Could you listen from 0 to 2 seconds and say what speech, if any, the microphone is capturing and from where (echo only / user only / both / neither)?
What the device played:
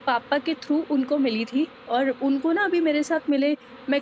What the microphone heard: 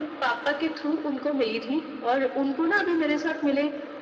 echo only